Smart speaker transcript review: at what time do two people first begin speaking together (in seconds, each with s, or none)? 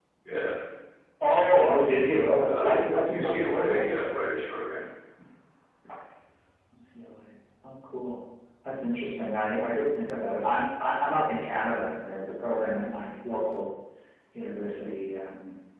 2.5 s